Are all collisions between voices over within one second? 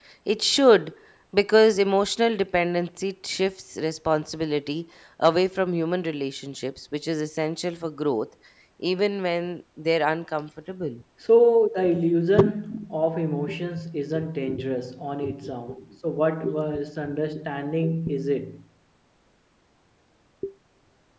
Yes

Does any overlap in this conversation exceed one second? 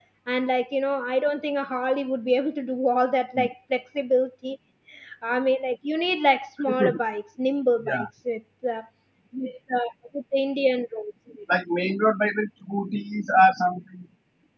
No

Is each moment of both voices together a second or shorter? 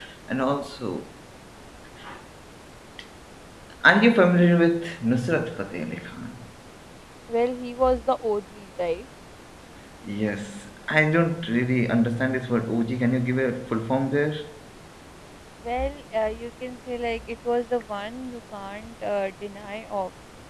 Yes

